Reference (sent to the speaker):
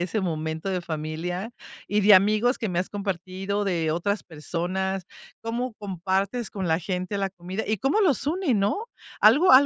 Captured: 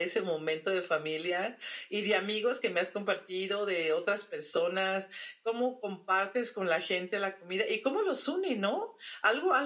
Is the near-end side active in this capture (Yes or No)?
No